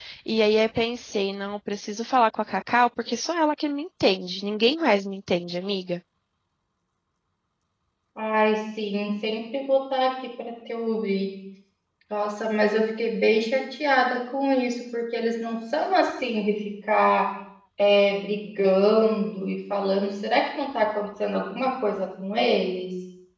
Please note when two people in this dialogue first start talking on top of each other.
none

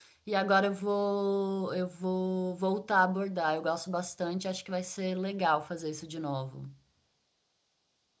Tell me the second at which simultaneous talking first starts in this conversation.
none

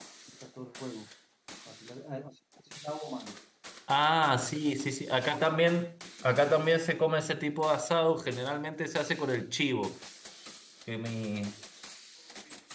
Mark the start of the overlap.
none

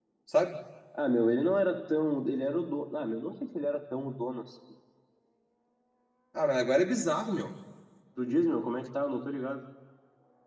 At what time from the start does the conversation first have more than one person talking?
none

